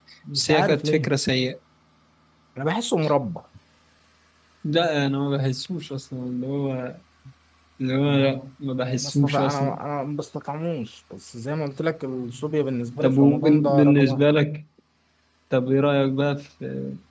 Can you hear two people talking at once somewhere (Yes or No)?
Yes